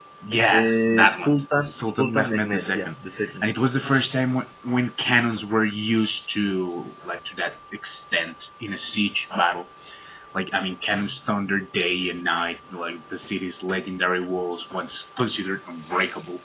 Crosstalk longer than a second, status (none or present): present